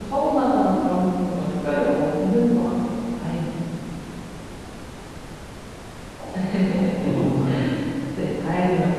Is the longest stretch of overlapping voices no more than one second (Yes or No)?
Yes